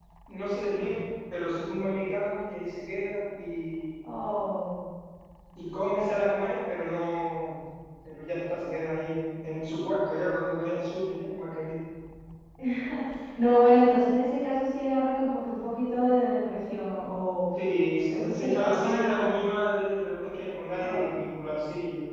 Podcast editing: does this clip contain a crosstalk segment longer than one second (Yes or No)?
Yes